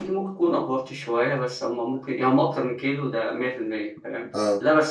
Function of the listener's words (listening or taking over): listening